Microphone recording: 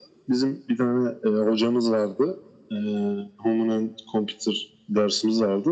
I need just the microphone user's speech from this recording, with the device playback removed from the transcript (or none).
none